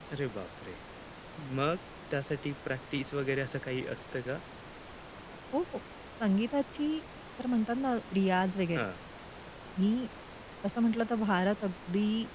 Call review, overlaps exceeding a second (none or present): none